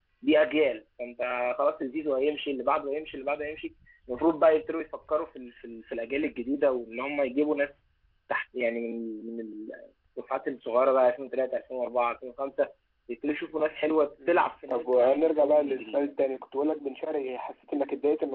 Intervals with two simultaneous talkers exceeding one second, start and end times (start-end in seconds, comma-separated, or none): 14.3-16.1